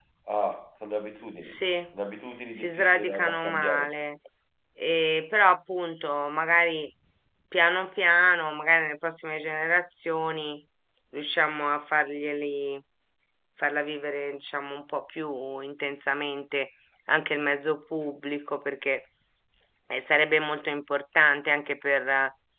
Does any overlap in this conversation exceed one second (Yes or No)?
Yes